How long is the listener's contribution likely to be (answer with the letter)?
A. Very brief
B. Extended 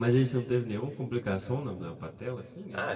B